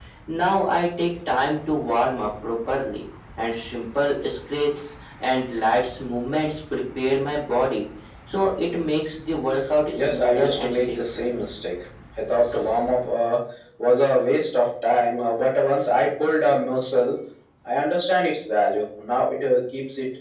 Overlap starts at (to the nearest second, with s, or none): 10 s